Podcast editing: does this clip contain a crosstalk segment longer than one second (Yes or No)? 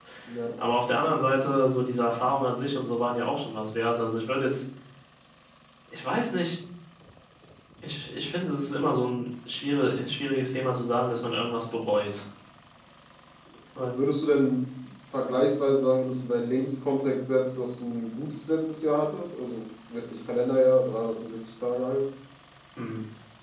No